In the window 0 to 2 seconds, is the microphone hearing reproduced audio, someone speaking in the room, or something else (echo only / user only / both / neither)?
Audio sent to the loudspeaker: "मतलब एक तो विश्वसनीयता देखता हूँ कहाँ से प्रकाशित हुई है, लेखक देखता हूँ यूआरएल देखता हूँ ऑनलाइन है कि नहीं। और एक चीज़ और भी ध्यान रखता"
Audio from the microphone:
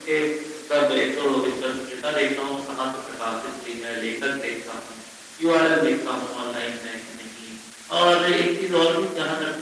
echo only